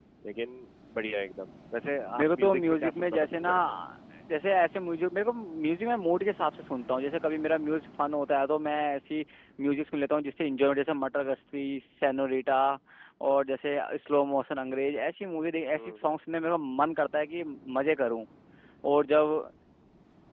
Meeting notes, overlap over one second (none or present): present